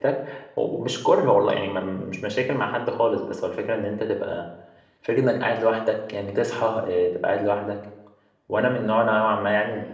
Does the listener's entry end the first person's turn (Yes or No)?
Yes